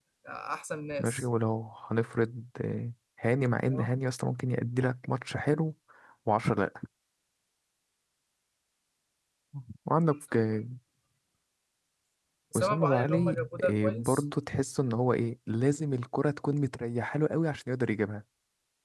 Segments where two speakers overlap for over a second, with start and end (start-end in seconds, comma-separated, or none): 12.6-14.1